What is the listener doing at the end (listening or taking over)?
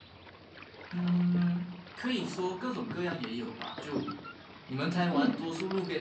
listening